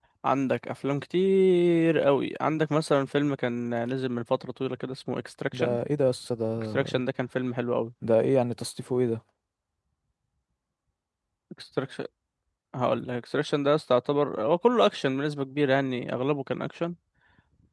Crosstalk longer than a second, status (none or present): none